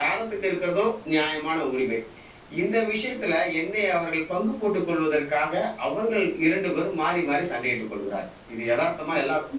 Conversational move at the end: taking over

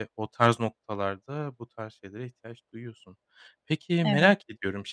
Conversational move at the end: listening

